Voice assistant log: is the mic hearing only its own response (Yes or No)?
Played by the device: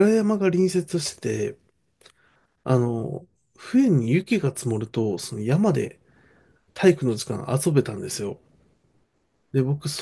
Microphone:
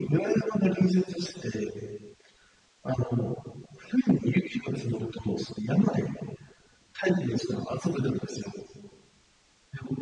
Yes